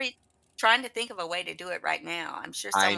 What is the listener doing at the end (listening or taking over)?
taking over